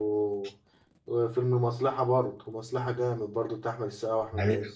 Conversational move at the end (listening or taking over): taking over